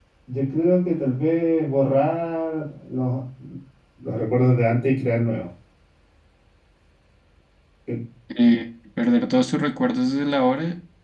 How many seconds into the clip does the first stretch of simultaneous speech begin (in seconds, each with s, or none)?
none